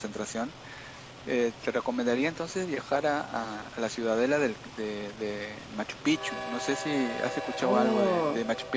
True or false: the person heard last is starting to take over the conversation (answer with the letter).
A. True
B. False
A